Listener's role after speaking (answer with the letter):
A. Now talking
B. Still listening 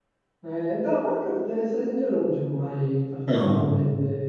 B